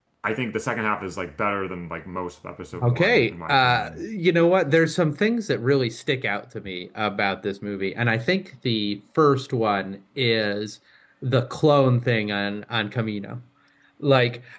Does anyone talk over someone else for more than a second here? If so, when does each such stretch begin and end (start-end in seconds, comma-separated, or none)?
2.8-4.0